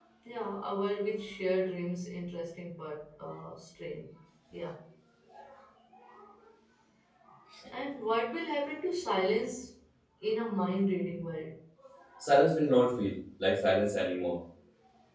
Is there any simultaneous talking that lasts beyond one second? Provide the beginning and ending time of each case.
none

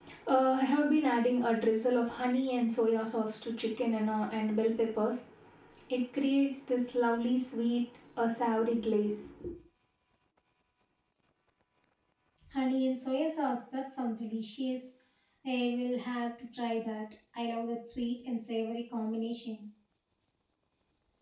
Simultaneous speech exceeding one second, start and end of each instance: none

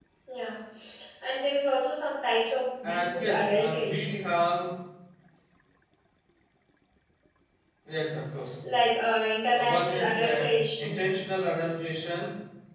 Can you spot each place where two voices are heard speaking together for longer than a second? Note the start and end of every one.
2.8-4.3, 9.5-11.2

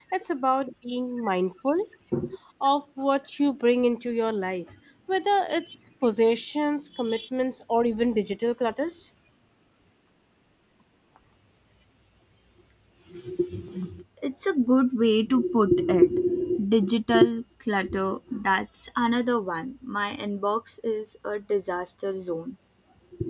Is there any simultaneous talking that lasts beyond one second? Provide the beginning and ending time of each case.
none

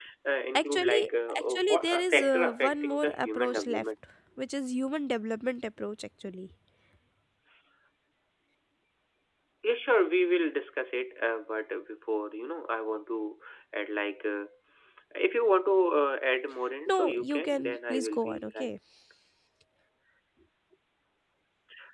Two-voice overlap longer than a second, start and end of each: 0.5-3.8, 16.9-18.7

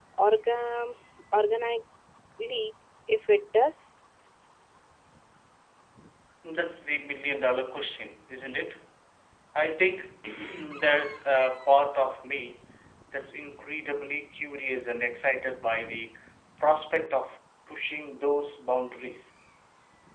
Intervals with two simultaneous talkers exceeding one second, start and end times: none

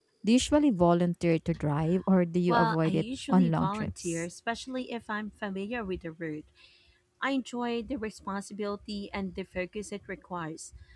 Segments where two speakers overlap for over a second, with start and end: 2.5-4.2

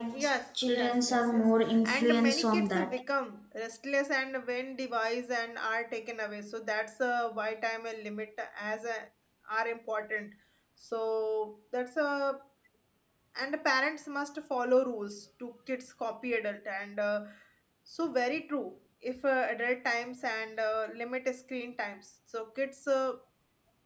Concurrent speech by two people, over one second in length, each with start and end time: 0.7-3.0

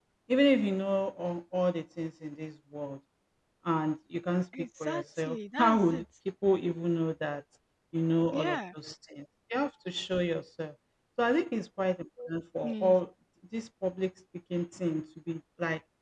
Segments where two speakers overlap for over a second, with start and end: 4.8-6.0

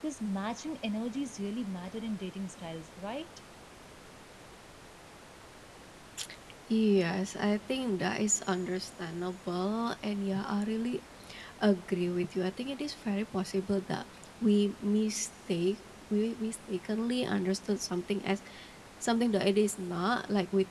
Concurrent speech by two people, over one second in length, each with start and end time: none

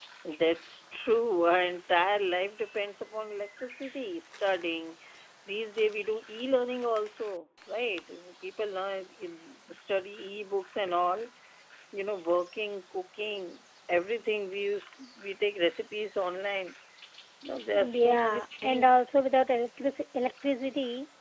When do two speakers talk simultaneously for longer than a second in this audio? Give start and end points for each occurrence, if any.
17.7-19.0

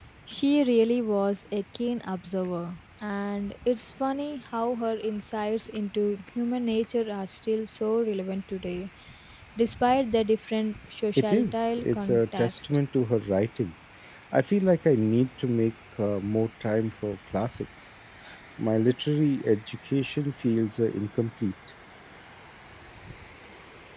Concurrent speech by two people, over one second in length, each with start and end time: 11.2-12.5

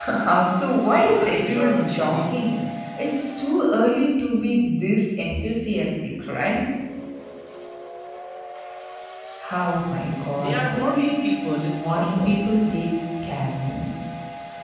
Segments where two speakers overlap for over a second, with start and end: 0.8-2.6, 10.4-12.5

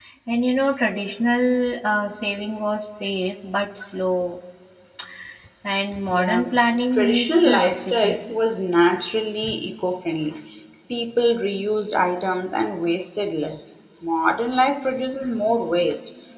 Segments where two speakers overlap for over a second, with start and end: 7.0-8.2

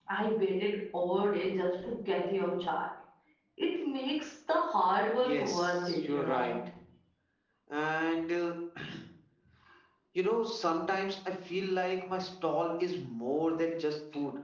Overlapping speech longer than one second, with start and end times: 5.2-6.5

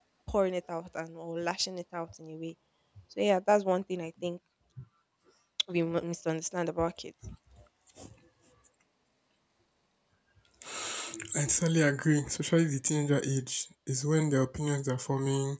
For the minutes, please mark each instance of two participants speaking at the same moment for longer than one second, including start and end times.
none

